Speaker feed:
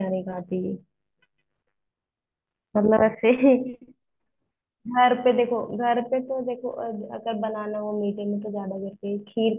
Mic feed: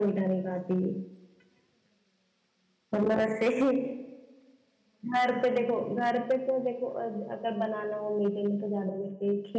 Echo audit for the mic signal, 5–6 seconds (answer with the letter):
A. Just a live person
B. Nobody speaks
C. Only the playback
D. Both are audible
C